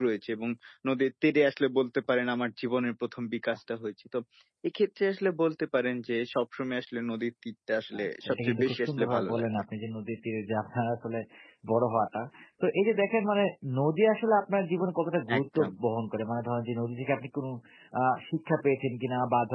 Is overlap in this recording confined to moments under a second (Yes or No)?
No